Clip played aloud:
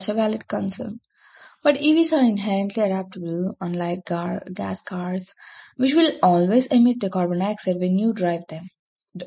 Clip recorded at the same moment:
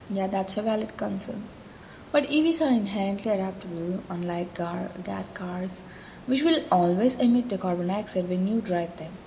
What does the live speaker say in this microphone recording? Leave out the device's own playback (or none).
none